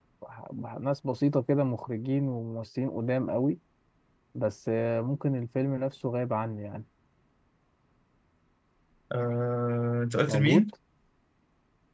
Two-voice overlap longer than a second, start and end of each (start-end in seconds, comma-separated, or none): none